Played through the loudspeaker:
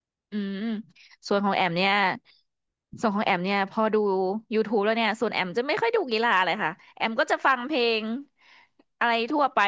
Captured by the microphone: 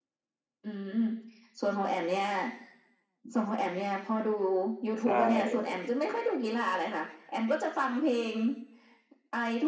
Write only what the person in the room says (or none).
ใช่